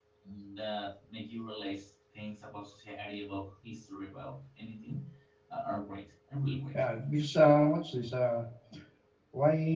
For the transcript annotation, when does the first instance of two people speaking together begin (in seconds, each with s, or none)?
none